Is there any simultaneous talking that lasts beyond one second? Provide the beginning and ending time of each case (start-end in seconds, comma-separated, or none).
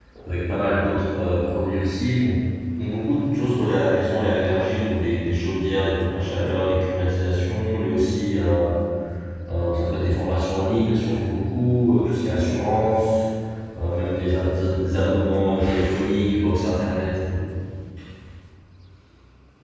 none